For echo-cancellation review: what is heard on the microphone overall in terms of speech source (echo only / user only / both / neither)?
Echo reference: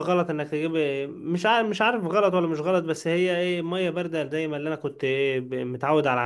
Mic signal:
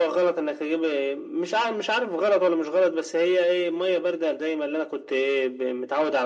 echo only